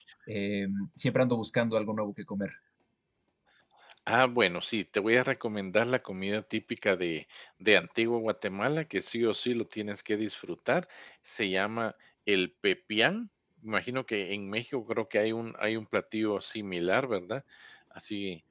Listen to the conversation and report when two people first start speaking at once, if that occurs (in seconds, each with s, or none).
none